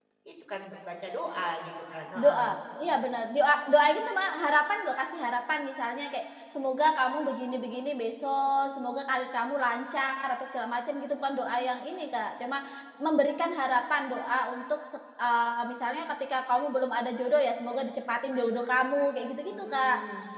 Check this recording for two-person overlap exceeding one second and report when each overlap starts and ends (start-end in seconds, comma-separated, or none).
none